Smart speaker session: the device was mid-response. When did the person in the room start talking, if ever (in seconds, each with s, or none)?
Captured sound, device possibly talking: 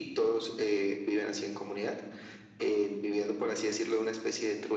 none